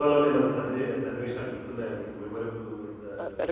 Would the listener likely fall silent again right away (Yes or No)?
No